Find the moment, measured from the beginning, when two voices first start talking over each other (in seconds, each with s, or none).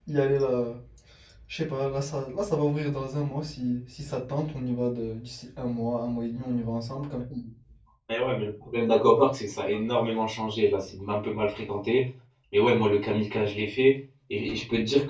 none